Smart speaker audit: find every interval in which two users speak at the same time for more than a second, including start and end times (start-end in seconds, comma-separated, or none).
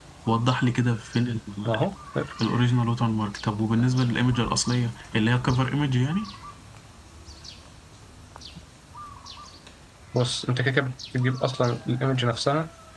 none